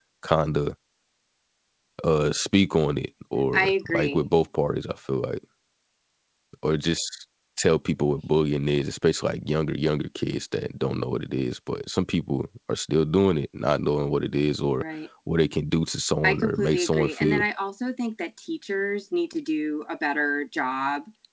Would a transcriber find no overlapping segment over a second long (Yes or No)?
No